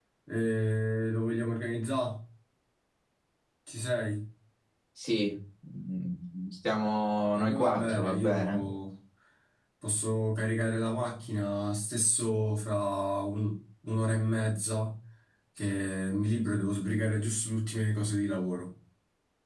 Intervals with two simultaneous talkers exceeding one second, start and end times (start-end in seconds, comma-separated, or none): 7.3-8.6